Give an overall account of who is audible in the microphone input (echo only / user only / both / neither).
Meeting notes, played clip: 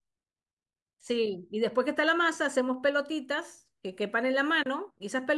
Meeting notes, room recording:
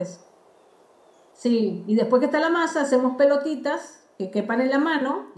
echo only